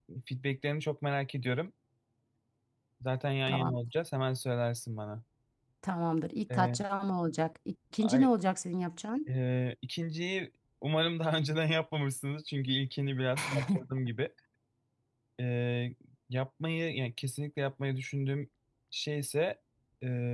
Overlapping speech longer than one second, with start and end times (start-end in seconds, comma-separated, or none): none